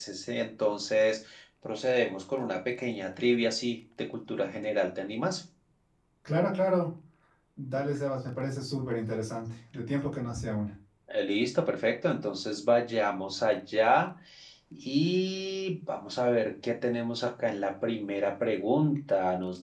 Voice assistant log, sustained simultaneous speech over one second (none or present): none